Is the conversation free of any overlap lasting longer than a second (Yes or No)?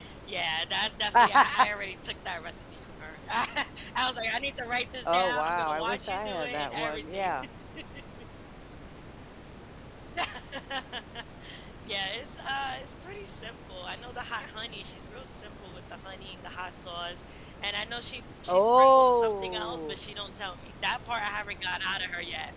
No